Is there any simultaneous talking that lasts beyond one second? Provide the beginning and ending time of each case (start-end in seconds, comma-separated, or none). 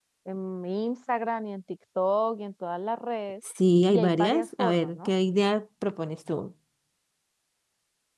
3.9-5.1